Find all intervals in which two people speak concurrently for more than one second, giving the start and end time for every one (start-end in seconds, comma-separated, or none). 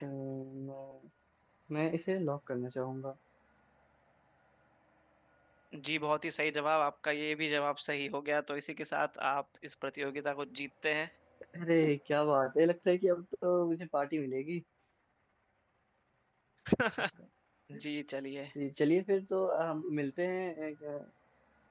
none